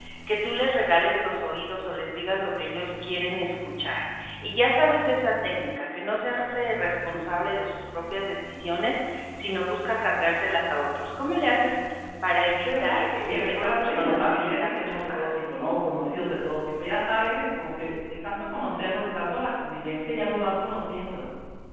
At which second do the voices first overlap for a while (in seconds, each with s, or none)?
12.6 s